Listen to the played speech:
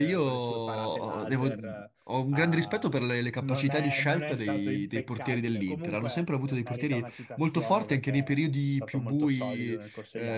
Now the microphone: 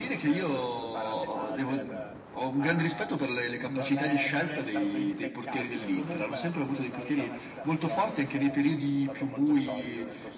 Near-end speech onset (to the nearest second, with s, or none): none